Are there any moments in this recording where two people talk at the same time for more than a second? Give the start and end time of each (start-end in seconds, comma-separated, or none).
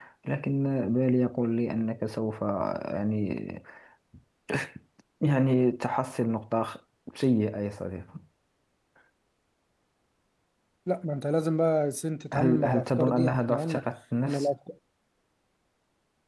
12.3-13.9